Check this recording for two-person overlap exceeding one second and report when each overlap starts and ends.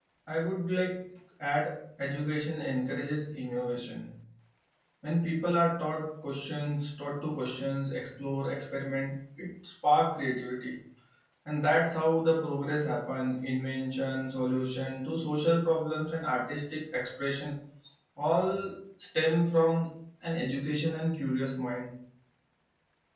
none

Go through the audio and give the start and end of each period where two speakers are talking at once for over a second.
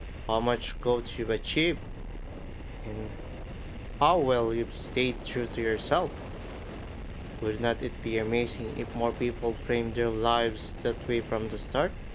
none

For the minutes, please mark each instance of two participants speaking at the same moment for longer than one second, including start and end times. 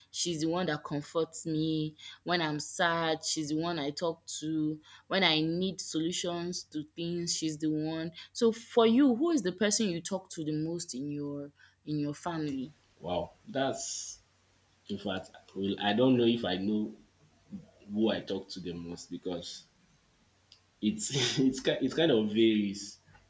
none

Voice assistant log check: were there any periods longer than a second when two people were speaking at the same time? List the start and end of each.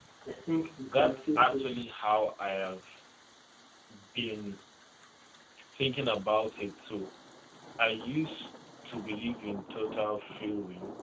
0.8-2.1

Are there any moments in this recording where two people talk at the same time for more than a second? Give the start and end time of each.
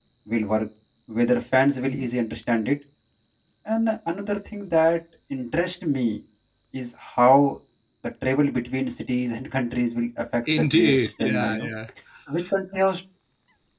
10.5-11.7

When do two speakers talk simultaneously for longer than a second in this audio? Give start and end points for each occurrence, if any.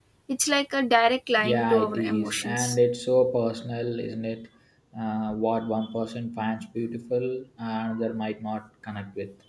1.4-2.8

